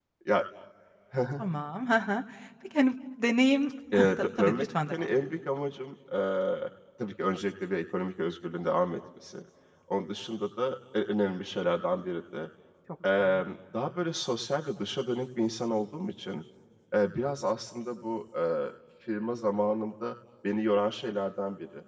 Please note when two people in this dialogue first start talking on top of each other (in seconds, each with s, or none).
3.9 s